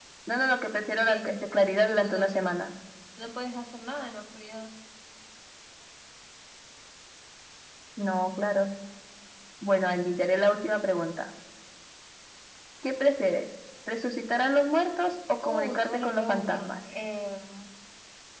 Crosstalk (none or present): present